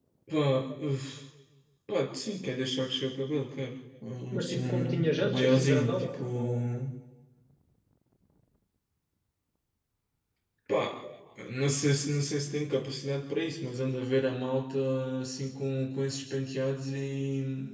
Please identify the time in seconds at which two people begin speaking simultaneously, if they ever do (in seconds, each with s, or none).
4.3 s